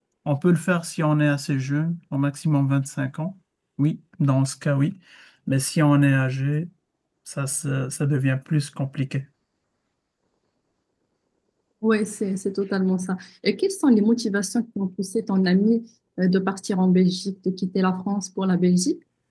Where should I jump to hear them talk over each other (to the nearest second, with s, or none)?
none